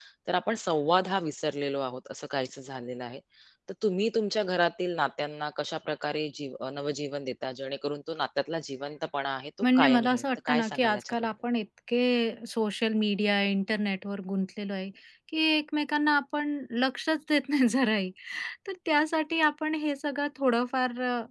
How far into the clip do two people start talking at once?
9.6 s

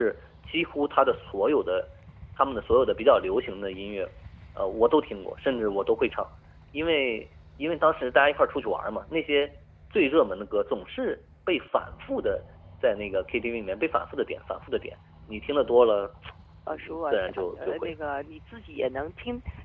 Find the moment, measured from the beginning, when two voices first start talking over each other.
16.7 s

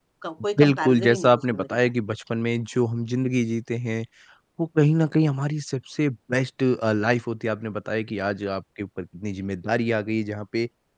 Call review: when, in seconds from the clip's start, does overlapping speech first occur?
0.6 s

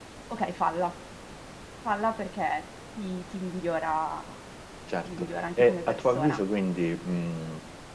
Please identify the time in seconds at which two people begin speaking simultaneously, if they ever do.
5.0 s

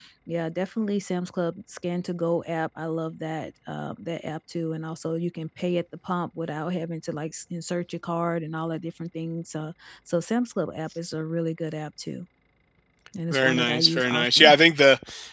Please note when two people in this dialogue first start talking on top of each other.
13.3 s

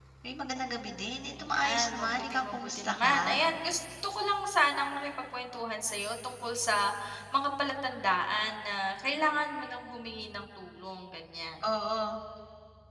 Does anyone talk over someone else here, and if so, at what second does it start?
1.3 s

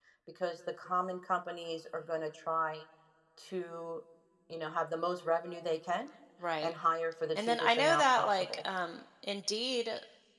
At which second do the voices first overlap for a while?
7.3 s

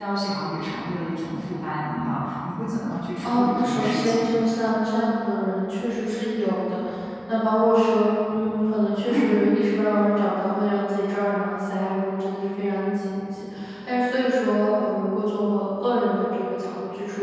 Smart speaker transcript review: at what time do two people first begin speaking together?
3.2 s

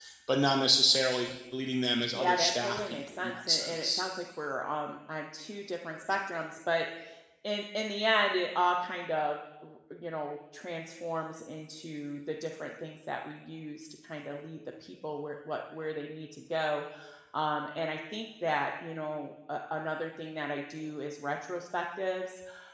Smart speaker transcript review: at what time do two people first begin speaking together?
2.1 s

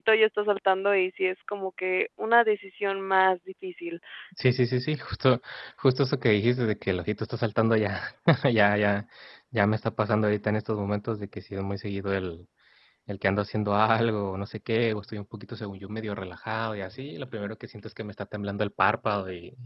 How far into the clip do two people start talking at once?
none

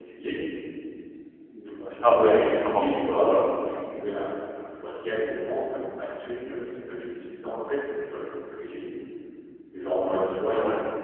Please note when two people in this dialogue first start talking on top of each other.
1.9 s

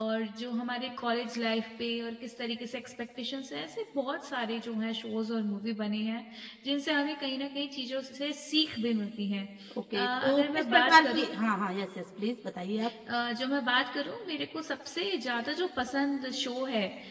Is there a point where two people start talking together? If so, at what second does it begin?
9.9 s

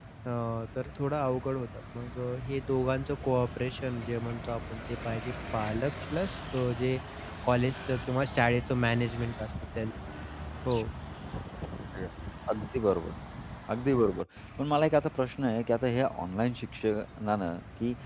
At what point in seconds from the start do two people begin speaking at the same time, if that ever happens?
none

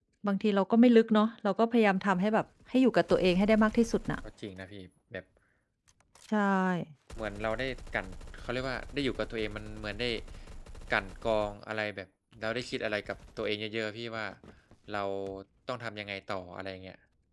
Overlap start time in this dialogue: none

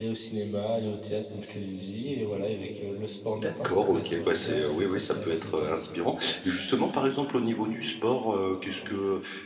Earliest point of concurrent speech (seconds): 3.4 s

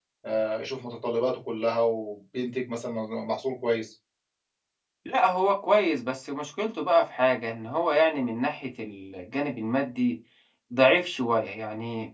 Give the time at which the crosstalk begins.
none

